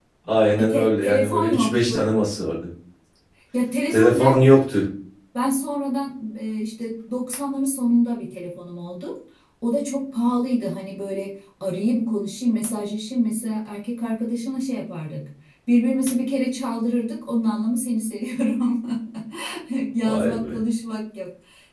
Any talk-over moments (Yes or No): Yes